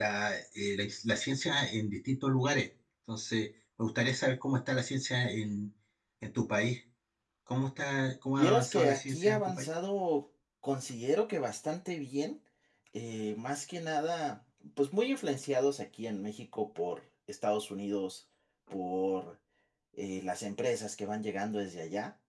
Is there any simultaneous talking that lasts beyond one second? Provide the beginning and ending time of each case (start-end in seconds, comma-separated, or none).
8.4-9.7